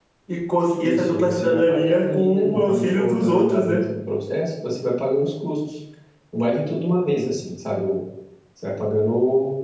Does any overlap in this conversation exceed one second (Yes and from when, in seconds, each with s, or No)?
Yes, from 0.8 s